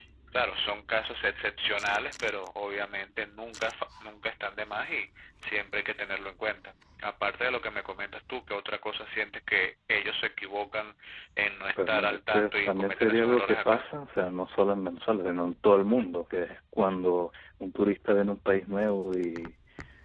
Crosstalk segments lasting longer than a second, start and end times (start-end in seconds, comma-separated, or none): 11.8-13.8